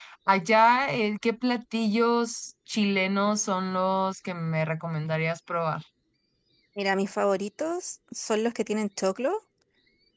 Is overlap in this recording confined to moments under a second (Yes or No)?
Yes